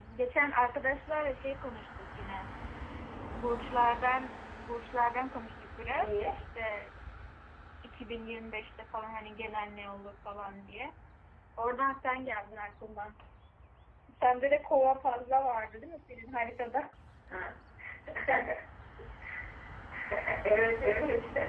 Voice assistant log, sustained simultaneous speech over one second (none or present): none